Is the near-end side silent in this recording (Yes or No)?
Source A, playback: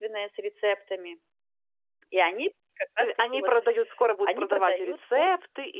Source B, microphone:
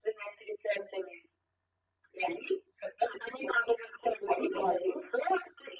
Yes